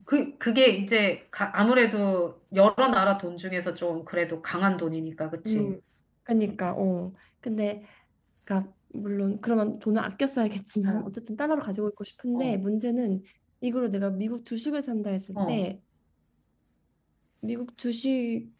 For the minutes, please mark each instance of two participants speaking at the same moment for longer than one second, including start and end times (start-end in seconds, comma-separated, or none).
none